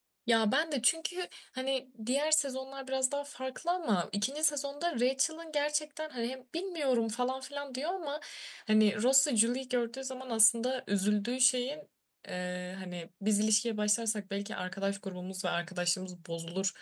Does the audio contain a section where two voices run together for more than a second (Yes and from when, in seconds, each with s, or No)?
No